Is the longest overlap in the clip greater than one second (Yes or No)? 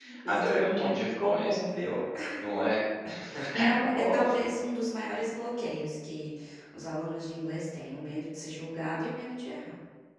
Yes